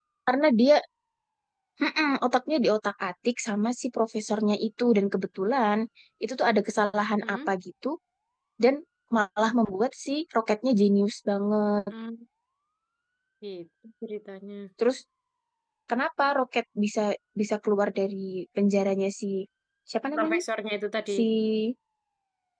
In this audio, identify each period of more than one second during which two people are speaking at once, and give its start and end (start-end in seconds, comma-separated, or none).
none